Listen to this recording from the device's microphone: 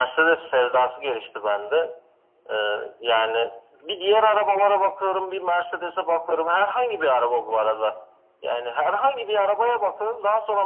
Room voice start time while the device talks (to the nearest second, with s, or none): none